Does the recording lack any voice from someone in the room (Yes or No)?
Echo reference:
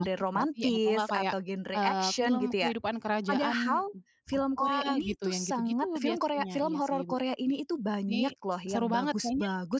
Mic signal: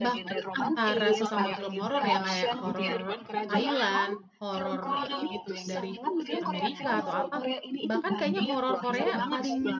No